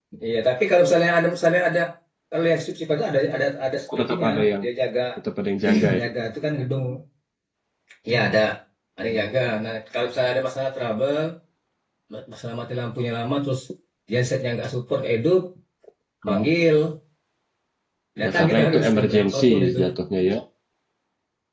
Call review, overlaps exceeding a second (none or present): present